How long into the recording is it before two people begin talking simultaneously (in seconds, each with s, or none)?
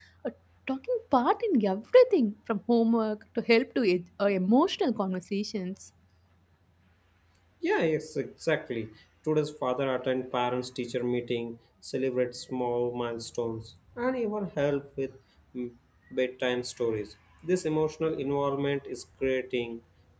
none